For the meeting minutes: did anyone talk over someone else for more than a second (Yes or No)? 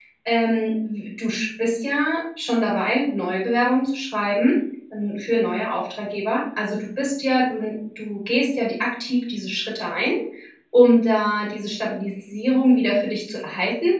No